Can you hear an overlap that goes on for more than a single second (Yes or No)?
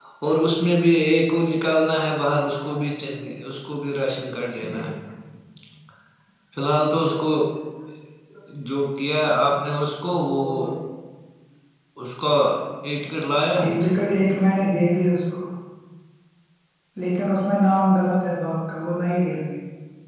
No